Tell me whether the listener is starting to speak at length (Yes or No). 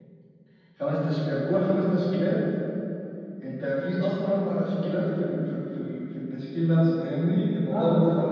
Yes